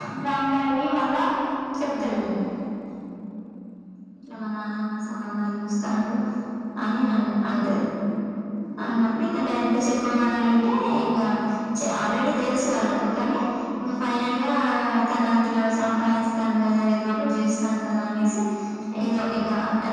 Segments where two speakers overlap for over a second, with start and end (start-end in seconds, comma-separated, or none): none